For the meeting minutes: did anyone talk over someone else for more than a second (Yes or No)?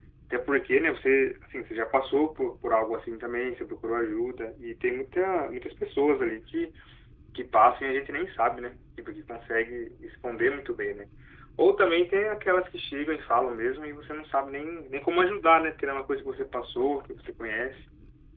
No